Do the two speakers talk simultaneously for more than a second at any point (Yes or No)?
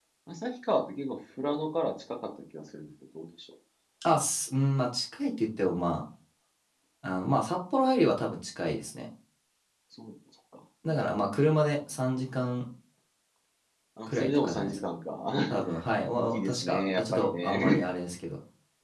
Yes